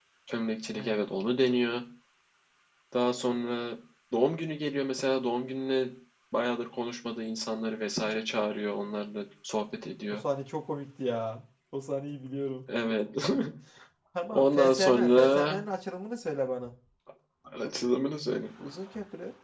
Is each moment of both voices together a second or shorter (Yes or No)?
No